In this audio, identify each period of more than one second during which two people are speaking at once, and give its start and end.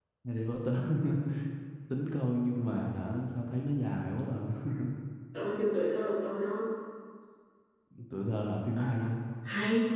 none

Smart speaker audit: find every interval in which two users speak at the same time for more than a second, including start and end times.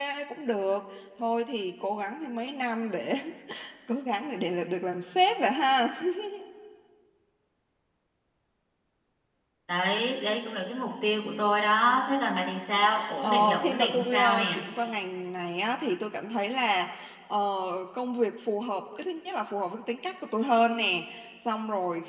13.2-14.6

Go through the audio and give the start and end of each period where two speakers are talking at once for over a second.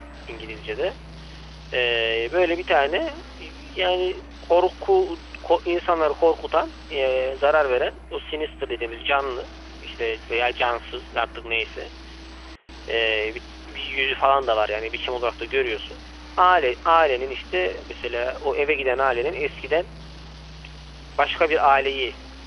none

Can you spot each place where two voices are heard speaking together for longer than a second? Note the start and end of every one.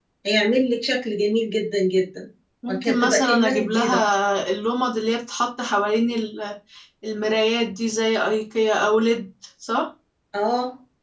2.7-4.0

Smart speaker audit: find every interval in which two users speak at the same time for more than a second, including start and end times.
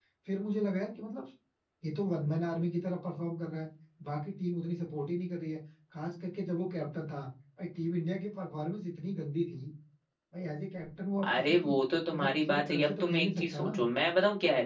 12.1-13.8

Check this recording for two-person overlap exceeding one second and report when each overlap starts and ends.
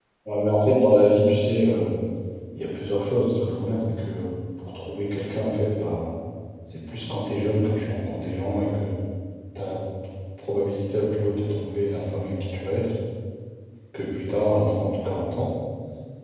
none

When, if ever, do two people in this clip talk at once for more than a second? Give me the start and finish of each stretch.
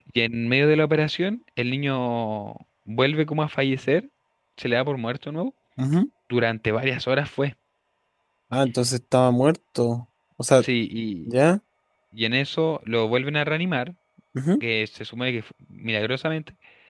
none

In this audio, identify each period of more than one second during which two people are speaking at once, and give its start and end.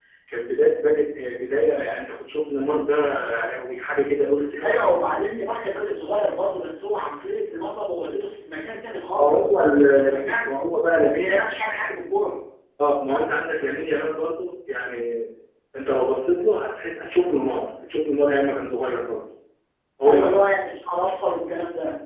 9.2-10.5

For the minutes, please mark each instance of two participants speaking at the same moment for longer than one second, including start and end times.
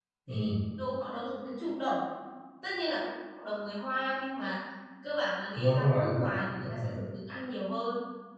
5.6-6.9

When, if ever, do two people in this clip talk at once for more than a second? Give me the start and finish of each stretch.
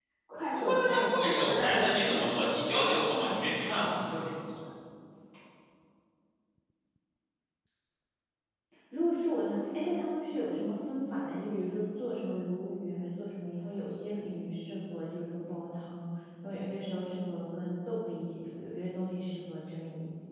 0.5-4.1

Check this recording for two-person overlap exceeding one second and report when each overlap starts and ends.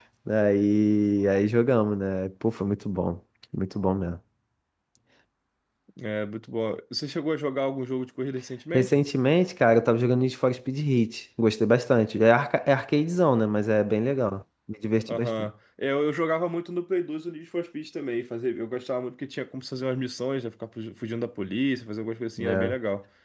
none

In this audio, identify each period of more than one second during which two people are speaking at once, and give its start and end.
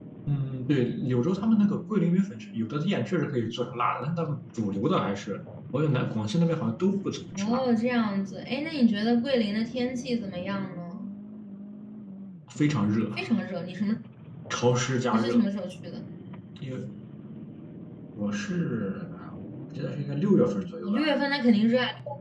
none

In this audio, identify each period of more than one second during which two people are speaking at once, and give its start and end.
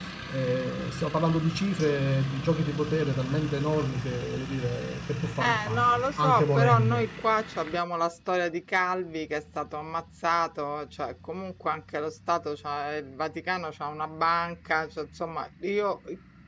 5.4-7.1

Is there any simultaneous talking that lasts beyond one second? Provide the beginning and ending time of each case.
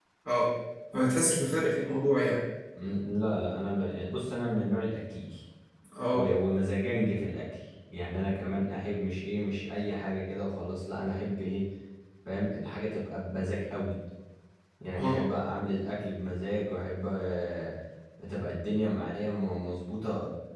none

